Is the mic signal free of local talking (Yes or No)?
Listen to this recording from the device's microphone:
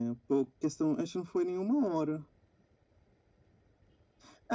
Yes